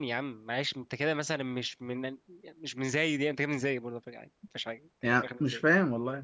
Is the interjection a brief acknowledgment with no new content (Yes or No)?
No